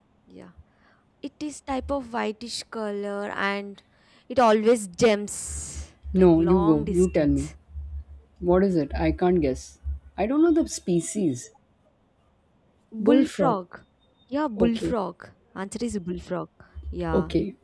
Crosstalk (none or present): present